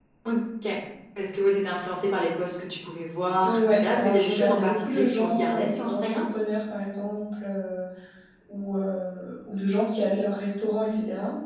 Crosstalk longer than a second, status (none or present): present